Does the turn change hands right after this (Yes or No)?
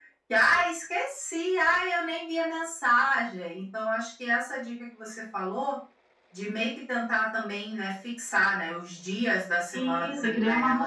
Yes